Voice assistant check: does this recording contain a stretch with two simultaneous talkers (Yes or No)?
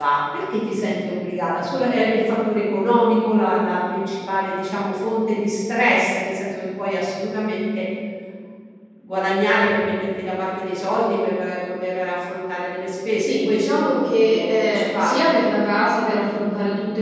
Yes